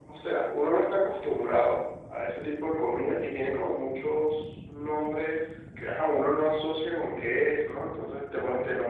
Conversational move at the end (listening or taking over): listening